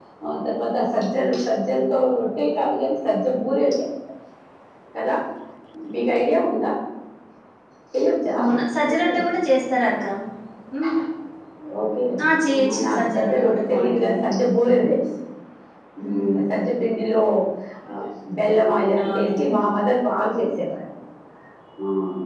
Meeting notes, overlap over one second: present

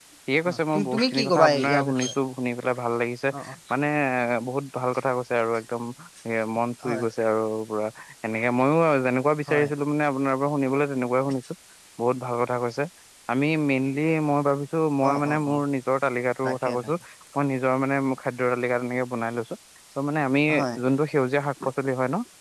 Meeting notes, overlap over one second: present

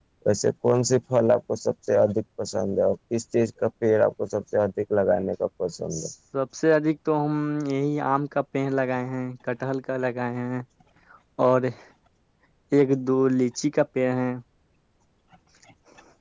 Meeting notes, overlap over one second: none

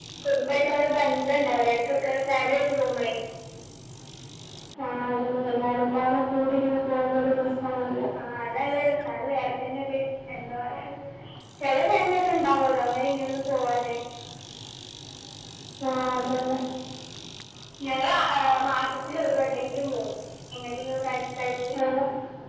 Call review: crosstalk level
none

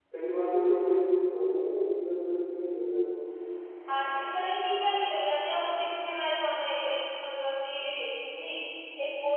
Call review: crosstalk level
none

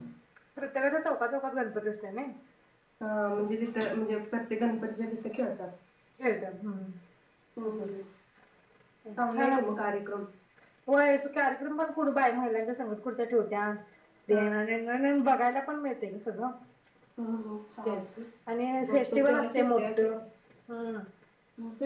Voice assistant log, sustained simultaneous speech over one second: present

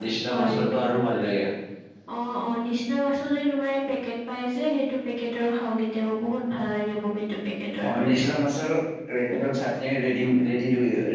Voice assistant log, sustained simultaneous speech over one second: none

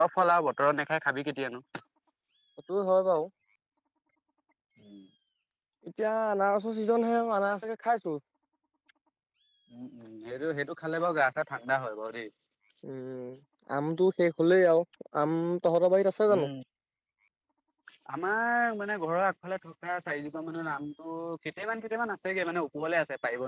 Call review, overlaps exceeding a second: none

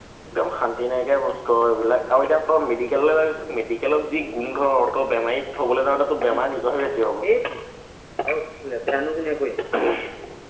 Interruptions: none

